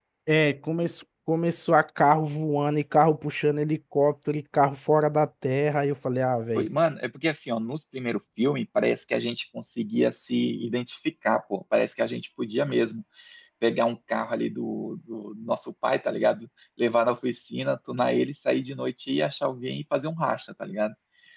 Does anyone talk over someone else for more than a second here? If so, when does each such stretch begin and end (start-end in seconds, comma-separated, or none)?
none